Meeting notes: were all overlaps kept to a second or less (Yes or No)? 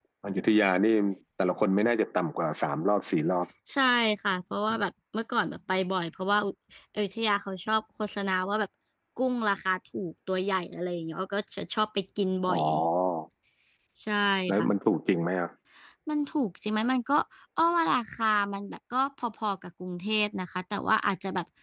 Yes